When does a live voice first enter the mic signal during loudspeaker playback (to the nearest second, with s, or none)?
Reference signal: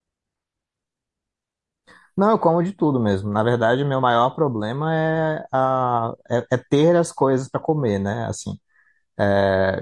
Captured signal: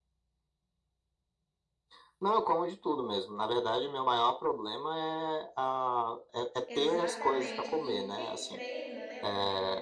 7 s